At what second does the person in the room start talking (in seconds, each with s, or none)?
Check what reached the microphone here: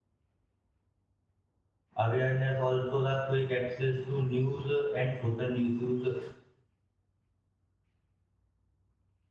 2.0 s